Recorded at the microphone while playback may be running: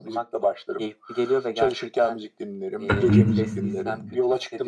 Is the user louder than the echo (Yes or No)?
Yes